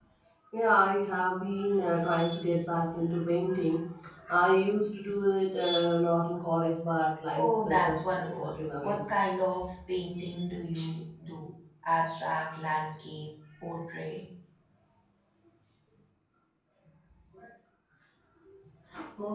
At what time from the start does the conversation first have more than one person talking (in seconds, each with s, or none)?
7.3 s